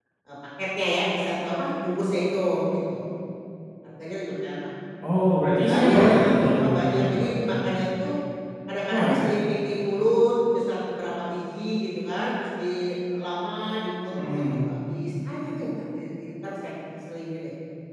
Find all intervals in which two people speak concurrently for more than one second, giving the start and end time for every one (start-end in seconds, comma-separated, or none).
5.7-7.4